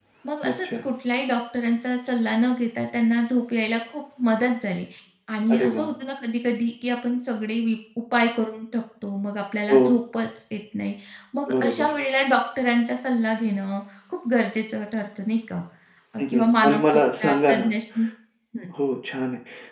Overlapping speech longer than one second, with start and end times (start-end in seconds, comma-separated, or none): 16.3-17.6